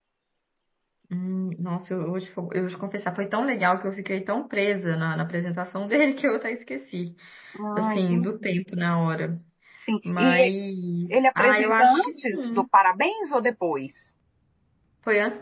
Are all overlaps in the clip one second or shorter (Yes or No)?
No